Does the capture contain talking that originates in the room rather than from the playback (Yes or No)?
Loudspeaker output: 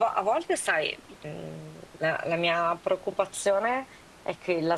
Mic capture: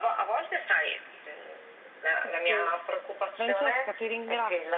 Yes